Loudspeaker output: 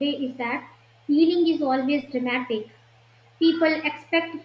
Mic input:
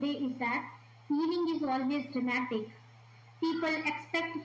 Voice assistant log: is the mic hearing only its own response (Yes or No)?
Yes